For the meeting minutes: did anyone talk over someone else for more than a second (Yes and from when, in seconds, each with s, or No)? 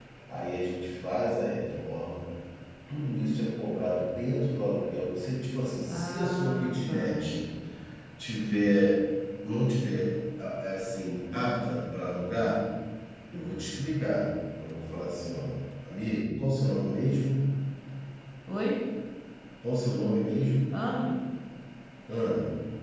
Yes, from 5.9 s